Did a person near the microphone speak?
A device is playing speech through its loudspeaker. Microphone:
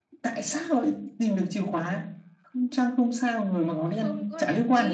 Yes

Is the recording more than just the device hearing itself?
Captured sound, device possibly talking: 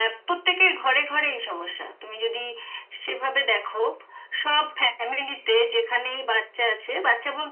No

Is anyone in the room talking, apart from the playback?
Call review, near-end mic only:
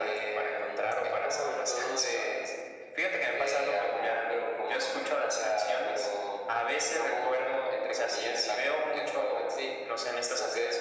No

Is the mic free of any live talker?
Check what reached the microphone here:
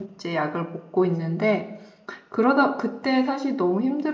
No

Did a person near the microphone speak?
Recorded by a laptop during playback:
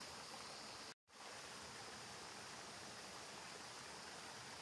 No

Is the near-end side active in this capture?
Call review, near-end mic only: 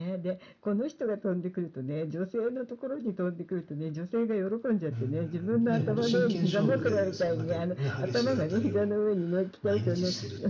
Yes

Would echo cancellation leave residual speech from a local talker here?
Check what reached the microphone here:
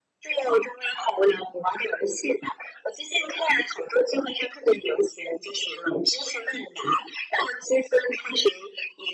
No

